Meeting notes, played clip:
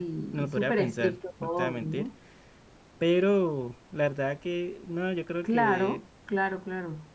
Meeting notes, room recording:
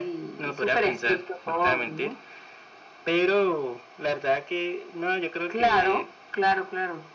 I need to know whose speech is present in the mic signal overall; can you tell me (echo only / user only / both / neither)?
echo only